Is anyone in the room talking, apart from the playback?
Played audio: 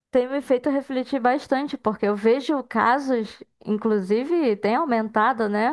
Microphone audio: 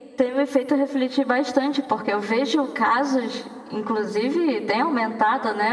No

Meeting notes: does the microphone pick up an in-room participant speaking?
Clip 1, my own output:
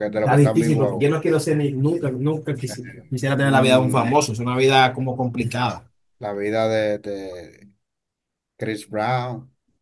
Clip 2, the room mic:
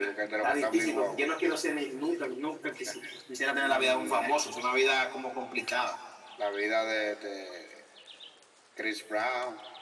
No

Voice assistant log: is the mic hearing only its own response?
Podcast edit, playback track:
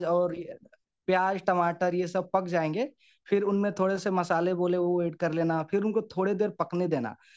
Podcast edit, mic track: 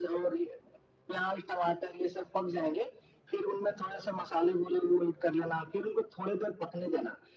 Yes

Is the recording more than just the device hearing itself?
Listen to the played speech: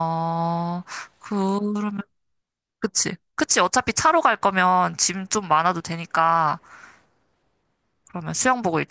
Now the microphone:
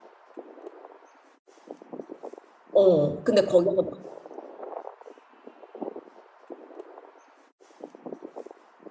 Yes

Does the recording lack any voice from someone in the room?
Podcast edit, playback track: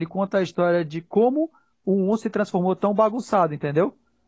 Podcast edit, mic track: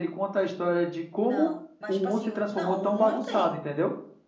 No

